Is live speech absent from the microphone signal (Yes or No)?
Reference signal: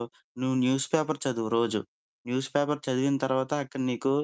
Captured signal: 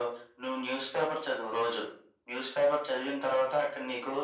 Yes